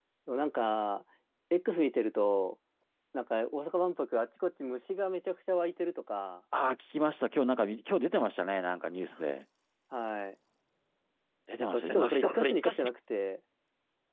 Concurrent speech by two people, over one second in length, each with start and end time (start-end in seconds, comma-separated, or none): 11.6-12.9